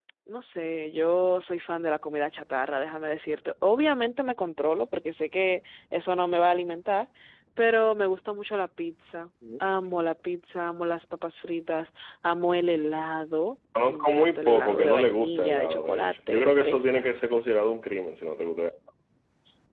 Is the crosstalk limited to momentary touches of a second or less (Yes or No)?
No